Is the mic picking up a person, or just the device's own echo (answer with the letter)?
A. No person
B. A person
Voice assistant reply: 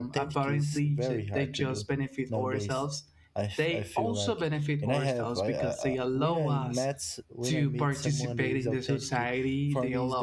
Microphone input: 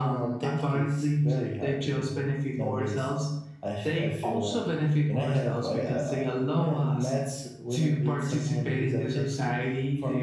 A